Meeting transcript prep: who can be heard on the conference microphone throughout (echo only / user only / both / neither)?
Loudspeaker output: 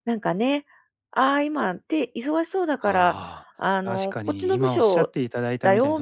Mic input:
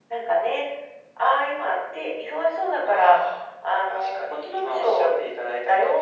echo only